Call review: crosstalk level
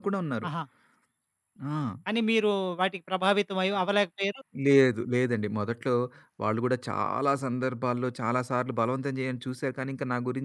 none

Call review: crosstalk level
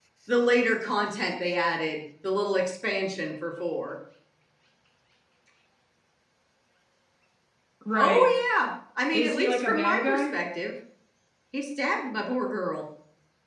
present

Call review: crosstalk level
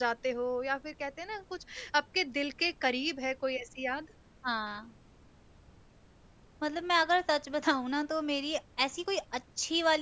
none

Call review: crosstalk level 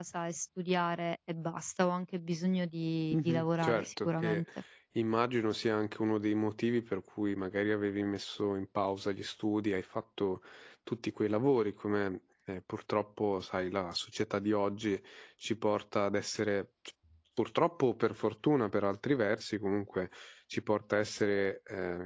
present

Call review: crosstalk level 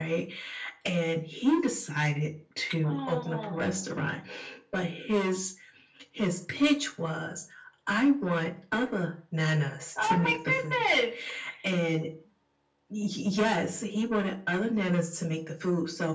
present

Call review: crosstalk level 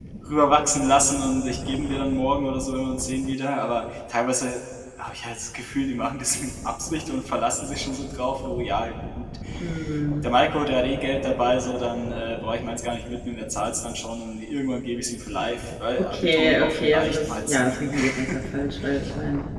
present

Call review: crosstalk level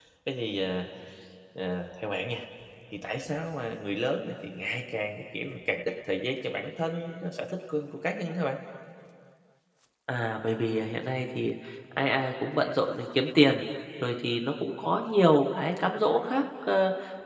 none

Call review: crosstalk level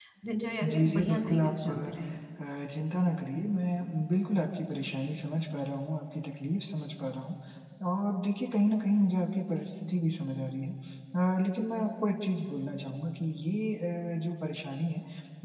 present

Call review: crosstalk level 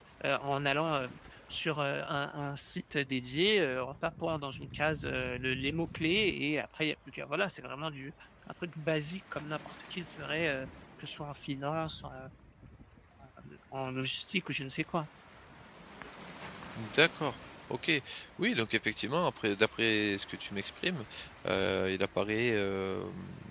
none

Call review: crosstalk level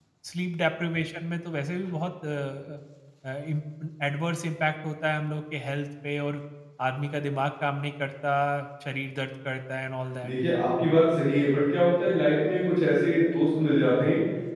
none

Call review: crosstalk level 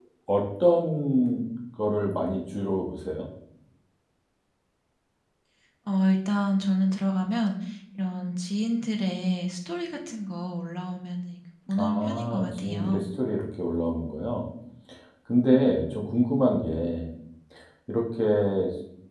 present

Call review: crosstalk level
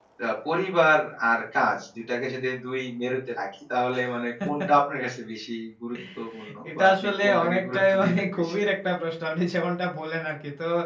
present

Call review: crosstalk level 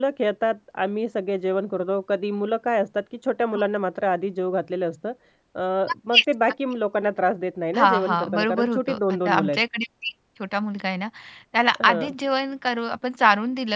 present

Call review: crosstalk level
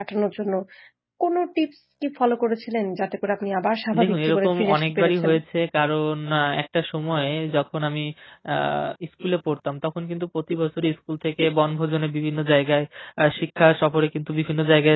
present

